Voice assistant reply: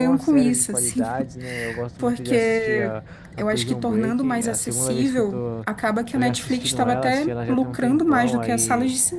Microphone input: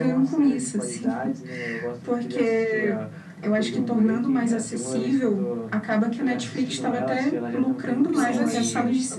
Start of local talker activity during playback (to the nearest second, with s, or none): 8 s